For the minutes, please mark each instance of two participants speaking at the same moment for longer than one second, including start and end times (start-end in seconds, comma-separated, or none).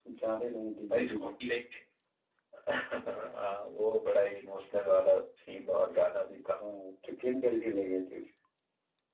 none